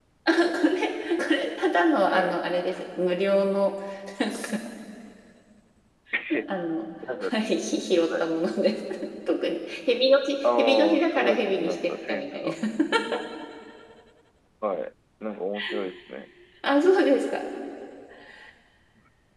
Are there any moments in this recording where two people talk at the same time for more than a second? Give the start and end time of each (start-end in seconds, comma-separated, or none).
10.4-12.5